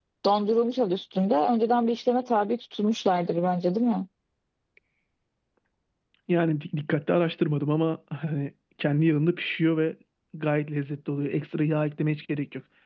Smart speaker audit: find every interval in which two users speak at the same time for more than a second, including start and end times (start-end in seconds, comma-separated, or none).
none